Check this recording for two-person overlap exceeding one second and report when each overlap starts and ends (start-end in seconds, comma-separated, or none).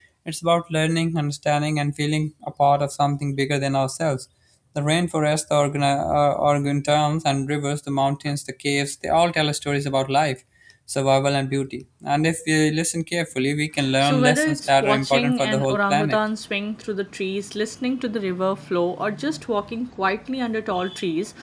14.0-16.2